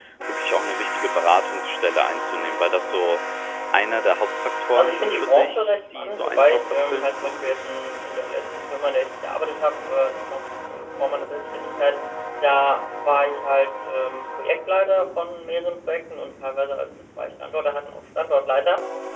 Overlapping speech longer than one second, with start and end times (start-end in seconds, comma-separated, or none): 4.8-7.5